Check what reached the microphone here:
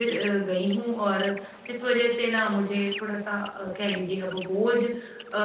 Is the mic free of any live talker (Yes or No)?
No